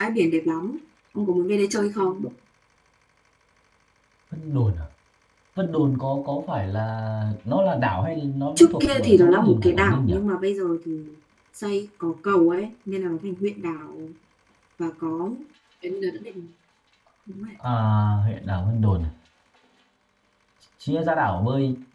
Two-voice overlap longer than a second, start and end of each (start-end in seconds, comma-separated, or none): 8.6-10.1